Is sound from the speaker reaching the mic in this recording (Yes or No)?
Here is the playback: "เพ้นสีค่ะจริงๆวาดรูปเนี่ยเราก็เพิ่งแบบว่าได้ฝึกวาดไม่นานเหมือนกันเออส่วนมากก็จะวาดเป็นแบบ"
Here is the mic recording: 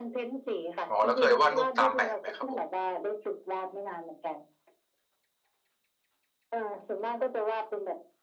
Yes